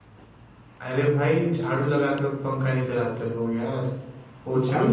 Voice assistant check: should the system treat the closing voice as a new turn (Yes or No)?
Yes